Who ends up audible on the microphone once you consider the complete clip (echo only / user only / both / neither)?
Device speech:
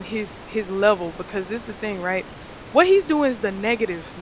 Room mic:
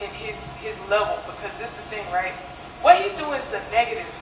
echo only